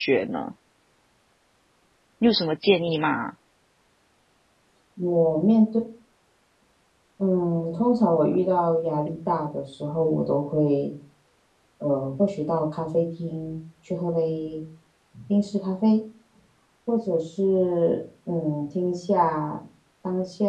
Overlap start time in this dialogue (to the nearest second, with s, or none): none